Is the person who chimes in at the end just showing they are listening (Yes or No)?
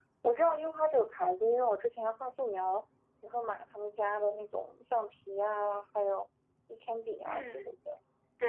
No